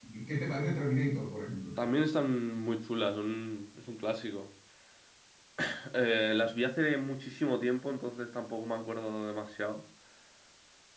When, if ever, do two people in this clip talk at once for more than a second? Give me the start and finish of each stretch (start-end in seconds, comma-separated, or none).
none